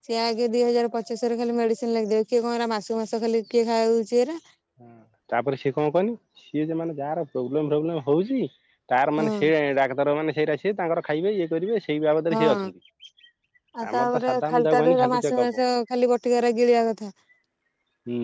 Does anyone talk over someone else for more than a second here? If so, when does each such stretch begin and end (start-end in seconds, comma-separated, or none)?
13.9-15.5